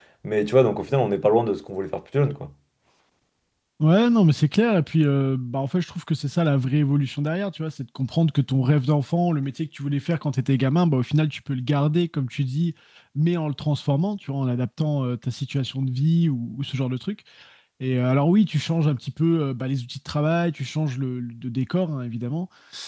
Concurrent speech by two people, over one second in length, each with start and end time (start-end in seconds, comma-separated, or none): none